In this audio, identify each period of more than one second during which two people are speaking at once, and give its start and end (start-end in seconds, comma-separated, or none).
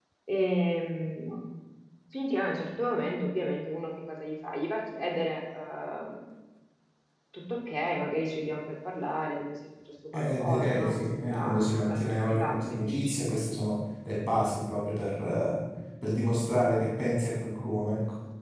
10.1-13.1